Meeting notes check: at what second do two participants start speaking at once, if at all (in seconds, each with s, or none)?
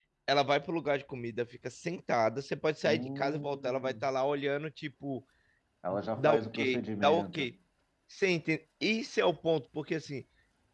2.8 s